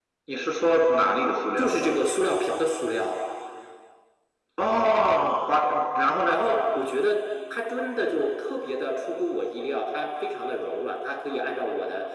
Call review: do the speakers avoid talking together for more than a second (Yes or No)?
Yes